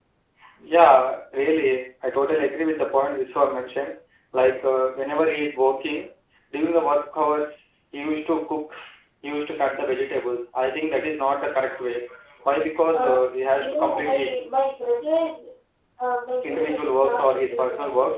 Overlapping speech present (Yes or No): Yes